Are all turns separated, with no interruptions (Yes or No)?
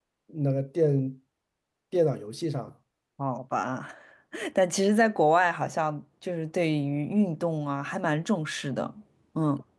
Yes